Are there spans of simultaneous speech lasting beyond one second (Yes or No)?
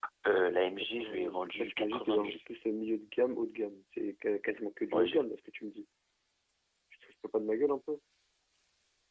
Yes